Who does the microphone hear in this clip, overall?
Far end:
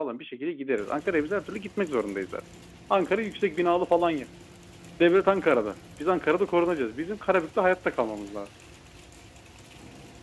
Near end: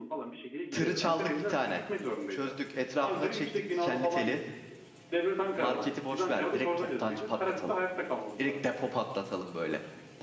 both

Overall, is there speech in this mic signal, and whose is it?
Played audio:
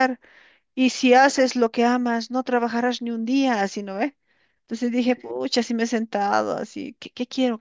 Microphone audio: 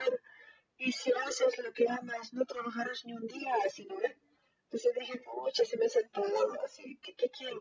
echo only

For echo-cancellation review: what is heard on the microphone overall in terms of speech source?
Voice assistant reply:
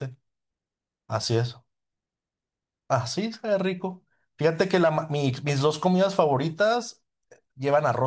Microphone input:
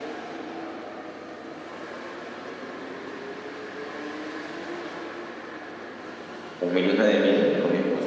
user only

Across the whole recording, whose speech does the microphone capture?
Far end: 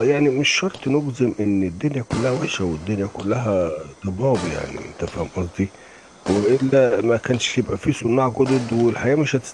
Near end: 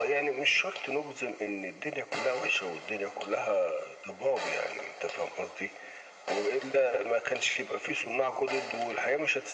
echo only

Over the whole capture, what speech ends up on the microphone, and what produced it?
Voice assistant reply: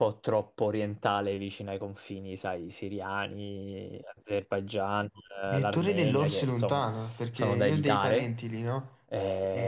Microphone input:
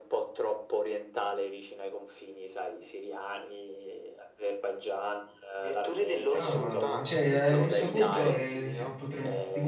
both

